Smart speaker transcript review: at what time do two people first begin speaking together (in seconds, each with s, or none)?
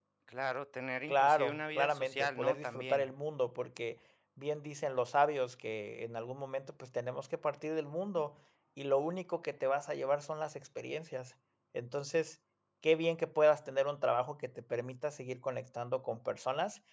1.1 s